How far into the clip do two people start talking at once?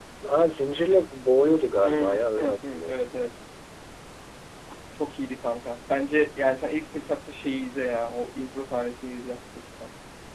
1.8 s

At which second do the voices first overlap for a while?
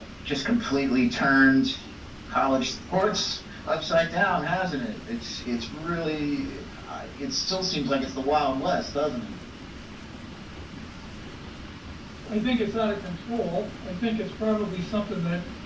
none

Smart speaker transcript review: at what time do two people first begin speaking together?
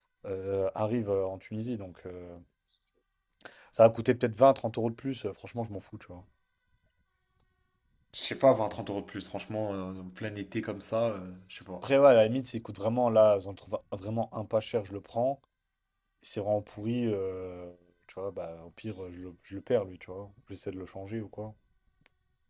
none

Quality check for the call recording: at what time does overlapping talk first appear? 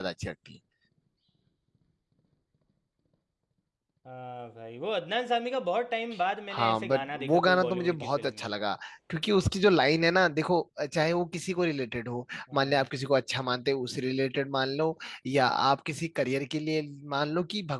6.5 s

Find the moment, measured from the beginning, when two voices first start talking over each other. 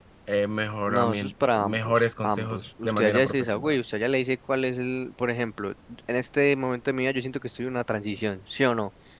0.9 s

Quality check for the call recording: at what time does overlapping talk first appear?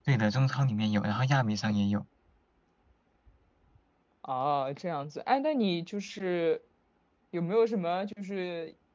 none

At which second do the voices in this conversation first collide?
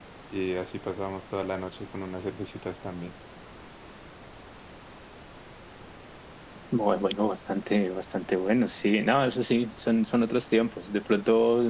none

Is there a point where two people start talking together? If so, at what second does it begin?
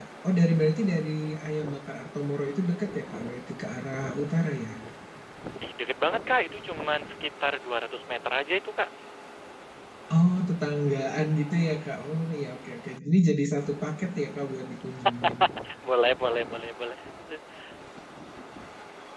none

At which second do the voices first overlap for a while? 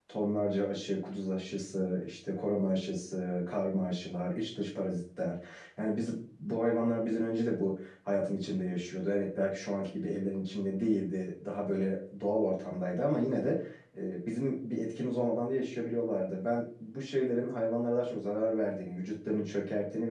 none

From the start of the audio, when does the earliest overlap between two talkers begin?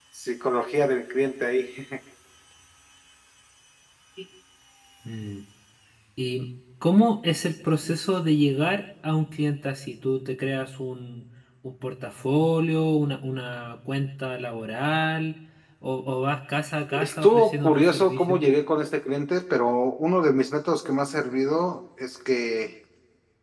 16.9 s

